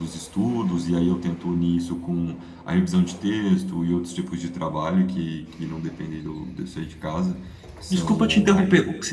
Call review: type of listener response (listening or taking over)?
taking over